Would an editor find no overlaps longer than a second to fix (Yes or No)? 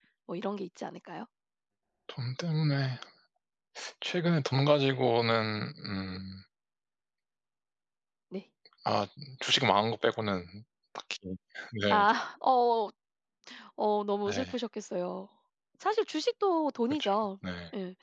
Yes